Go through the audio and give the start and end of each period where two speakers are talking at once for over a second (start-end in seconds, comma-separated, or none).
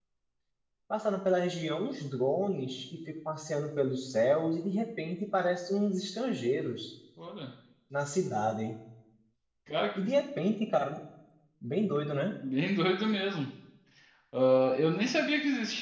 none